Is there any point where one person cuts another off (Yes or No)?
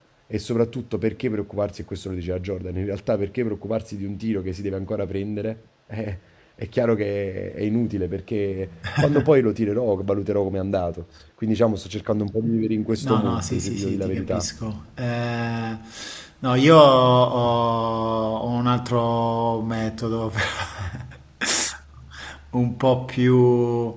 Yes